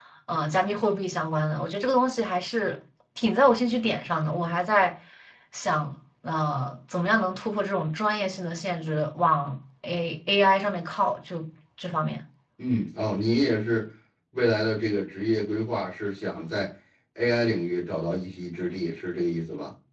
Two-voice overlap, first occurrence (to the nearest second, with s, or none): none